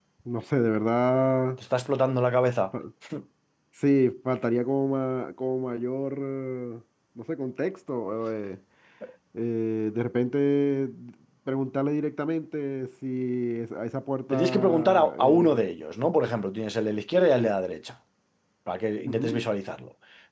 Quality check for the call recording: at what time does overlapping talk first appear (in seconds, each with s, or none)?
14.3 s